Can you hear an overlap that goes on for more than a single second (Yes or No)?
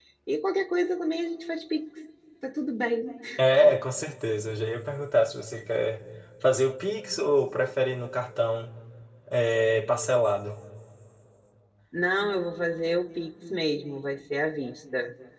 No